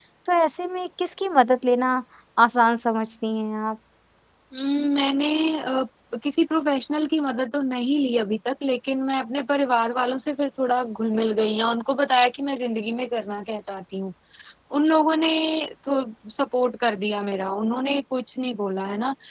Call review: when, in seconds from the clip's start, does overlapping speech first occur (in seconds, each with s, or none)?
none